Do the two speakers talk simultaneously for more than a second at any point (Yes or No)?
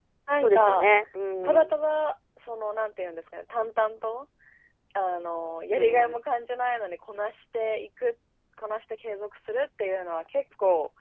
No